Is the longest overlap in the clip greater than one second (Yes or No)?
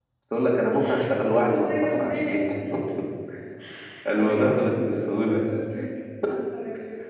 Yes